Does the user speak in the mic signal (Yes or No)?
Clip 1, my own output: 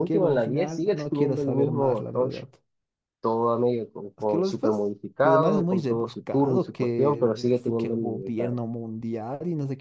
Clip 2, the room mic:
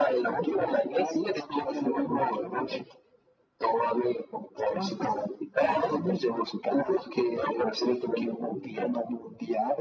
No